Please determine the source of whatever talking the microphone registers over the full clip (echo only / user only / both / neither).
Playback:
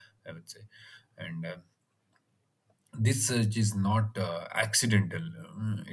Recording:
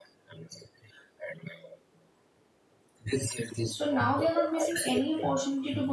both